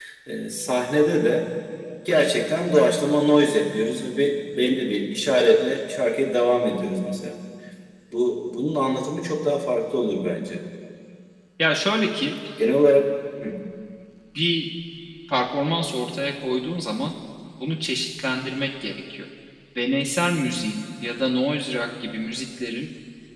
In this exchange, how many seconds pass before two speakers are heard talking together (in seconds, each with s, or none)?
none